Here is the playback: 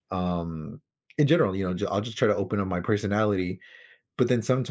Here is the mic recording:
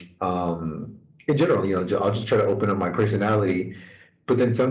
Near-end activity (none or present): none